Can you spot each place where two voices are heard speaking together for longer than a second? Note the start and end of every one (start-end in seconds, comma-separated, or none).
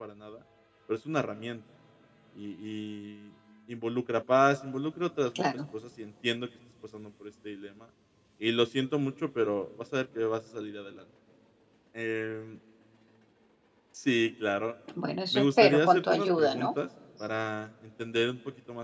15.3-16.7